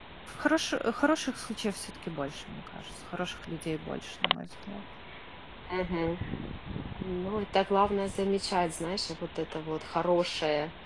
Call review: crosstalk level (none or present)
none